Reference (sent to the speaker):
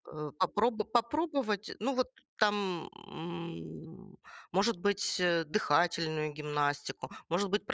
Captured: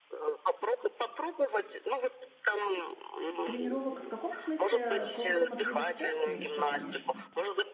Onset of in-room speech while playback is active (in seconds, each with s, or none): 3.4 s